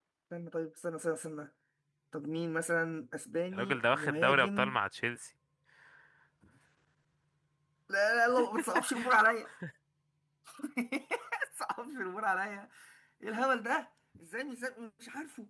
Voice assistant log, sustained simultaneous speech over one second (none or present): present